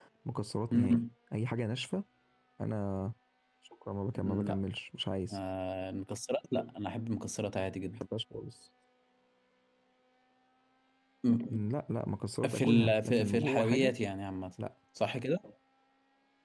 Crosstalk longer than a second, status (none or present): present